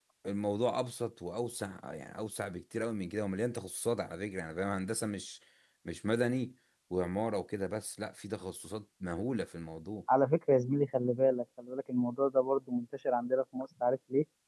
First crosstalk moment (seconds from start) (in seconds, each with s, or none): none